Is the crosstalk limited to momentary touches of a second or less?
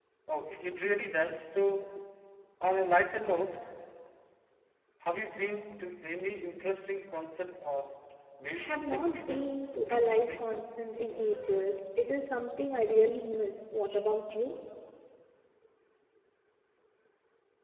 No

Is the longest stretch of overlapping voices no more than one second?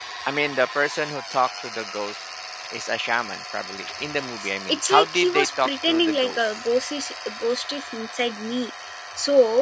No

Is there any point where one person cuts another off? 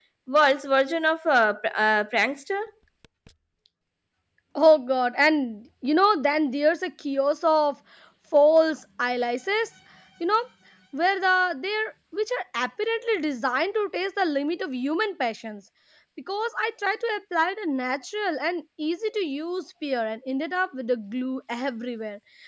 No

